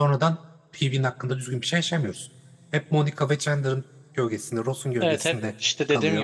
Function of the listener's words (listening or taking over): taking over